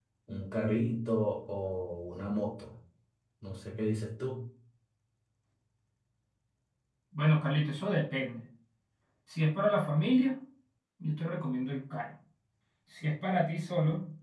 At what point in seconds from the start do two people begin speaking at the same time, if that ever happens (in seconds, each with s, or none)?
none